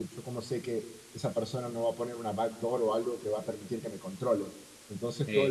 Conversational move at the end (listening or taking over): listening